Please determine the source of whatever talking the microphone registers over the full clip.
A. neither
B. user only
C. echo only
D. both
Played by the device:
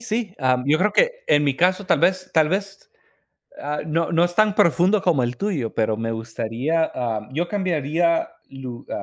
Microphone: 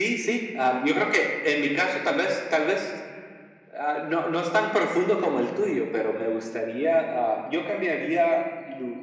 C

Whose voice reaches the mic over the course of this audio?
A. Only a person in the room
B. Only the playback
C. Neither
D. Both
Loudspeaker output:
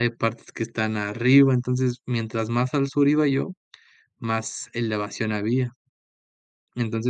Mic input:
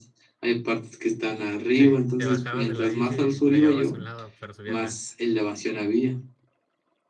D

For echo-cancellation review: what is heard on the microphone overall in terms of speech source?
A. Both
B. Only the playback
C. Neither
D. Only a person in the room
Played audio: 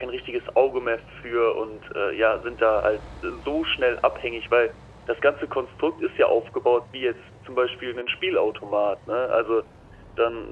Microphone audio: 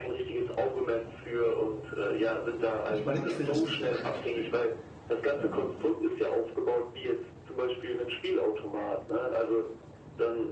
A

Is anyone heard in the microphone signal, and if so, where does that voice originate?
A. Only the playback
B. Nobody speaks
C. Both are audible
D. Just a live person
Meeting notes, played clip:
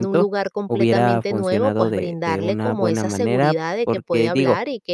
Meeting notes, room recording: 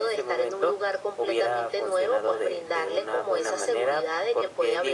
A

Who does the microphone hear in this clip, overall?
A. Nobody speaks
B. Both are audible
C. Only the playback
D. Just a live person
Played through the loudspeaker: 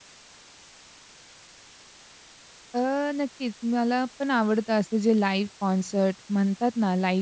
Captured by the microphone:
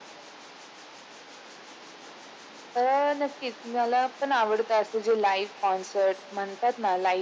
C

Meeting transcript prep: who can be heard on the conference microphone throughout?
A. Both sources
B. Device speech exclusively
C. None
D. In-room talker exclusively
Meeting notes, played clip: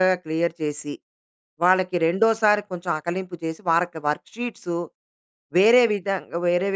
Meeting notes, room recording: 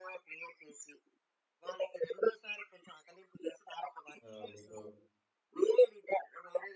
A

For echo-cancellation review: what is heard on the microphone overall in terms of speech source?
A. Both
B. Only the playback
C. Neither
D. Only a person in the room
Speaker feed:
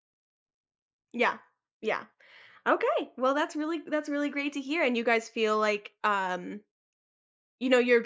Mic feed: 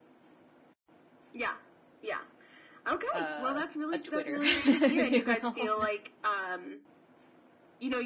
A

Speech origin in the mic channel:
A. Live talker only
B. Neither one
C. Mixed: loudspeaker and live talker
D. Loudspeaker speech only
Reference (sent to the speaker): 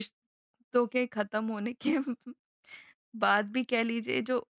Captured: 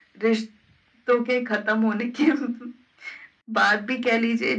D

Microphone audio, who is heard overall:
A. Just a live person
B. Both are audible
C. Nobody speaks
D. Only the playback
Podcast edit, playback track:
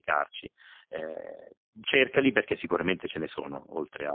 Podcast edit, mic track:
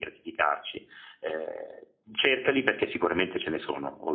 D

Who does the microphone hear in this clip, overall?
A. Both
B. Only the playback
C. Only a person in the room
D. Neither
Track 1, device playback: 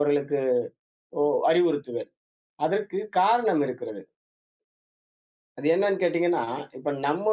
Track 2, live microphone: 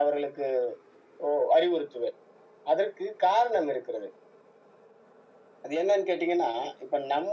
B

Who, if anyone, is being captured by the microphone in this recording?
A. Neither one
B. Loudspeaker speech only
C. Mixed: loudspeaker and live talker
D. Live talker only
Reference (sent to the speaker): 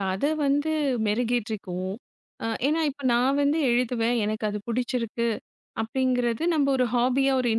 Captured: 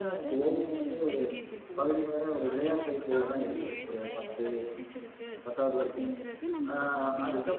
C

